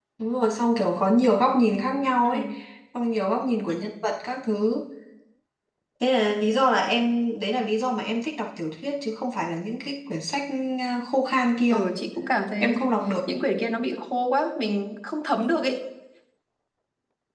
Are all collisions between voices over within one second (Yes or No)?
Yes